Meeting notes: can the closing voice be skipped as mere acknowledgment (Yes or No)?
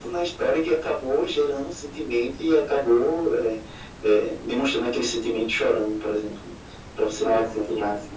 No